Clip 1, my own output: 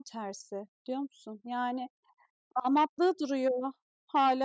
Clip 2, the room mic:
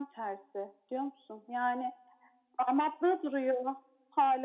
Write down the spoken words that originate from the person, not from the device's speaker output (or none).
none